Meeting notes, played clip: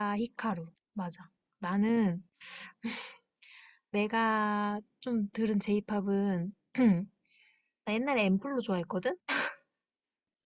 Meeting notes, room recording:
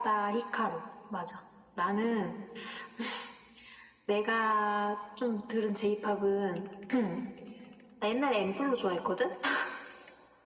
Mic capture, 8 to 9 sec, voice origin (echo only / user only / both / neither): echo only